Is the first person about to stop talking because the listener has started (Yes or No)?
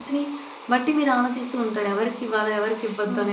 Yes